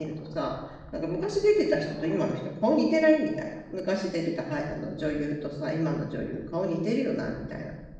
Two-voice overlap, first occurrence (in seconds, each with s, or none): none